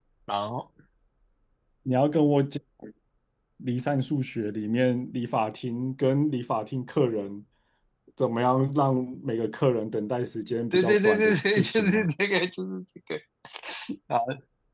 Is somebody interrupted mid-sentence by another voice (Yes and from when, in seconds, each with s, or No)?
Yes, from 10.7 s